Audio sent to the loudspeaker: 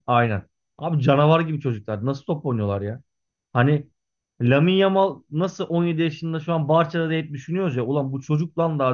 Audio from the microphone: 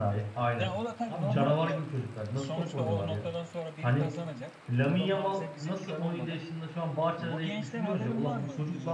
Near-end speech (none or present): present